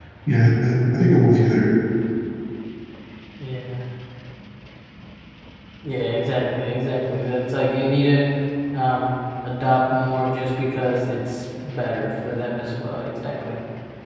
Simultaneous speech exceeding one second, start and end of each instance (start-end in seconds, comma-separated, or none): none